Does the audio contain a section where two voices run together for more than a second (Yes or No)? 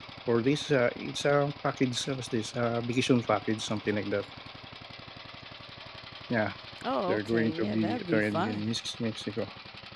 Yes